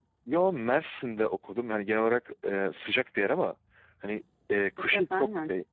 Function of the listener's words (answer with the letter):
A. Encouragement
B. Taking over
A